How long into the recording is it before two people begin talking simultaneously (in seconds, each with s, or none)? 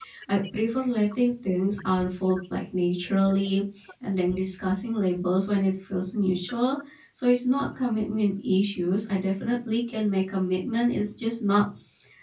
none